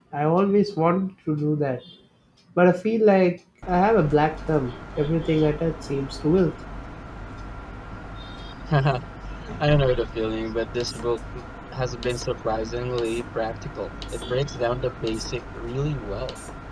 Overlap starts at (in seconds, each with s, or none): none